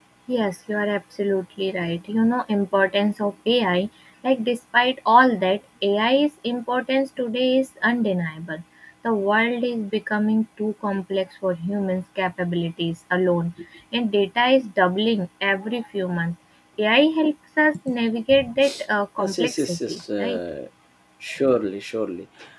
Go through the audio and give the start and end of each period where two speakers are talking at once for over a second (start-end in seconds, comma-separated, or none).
19.2-20.4